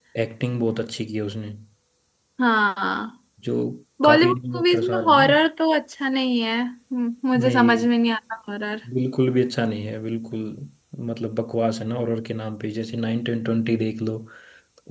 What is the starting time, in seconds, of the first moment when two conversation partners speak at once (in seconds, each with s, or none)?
4.0 s